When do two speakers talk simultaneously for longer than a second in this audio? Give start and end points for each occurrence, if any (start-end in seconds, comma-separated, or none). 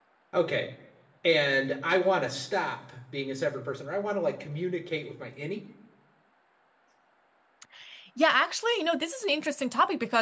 none